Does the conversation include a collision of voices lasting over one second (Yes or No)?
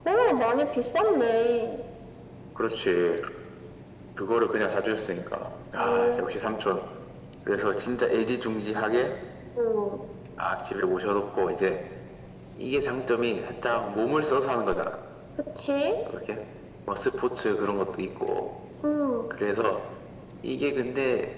No